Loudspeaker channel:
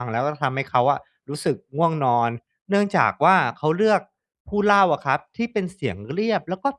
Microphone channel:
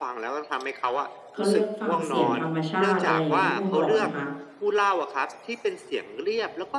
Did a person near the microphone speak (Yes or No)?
Yes